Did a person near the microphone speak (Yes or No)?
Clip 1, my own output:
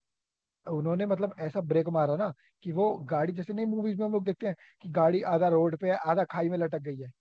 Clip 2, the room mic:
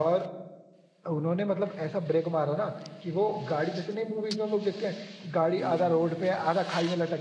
Yes